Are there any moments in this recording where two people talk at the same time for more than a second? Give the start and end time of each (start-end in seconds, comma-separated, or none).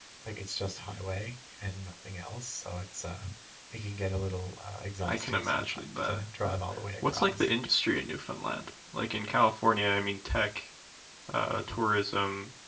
5.0-6.5